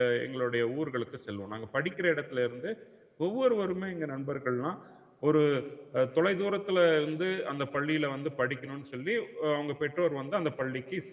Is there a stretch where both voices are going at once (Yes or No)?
No